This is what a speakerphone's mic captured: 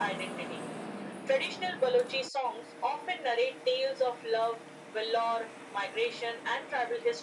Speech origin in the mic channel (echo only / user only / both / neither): echo only